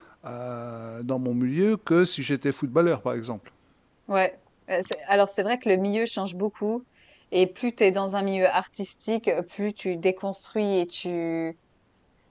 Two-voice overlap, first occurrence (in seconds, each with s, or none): none